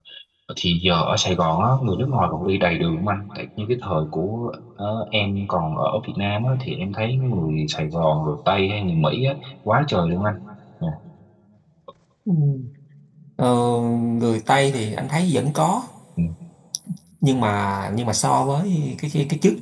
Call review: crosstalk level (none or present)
none